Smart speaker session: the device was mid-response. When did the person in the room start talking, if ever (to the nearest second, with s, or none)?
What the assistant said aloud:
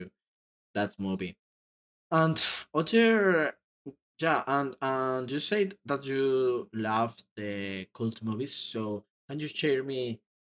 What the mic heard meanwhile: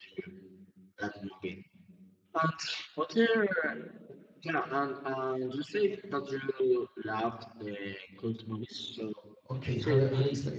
9 s